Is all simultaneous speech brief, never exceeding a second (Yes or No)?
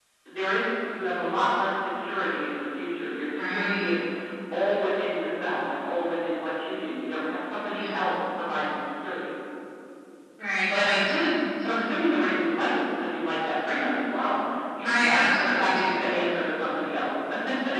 No